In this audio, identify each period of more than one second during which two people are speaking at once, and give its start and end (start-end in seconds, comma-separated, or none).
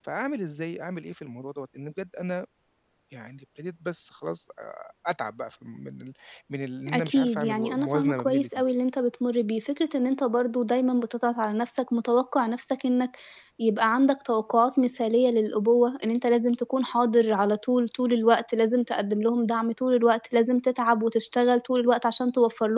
6.9-8.5